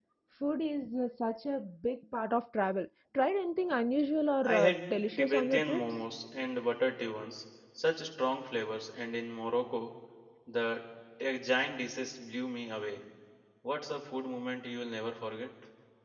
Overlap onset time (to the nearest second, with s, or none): 4 s